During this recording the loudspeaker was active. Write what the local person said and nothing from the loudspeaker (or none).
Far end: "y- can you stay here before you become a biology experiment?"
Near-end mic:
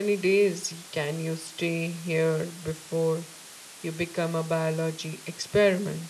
none